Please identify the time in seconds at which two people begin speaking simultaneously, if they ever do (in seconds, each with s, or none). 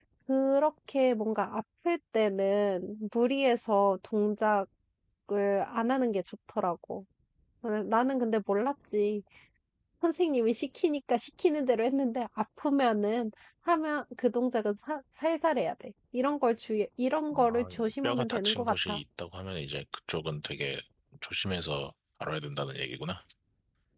17.3 s